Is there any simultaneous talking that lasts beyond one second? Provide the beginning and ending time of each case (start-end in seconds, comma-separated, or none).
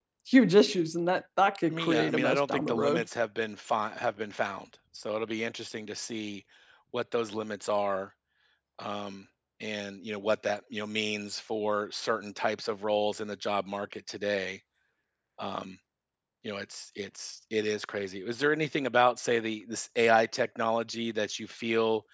1.7-3.0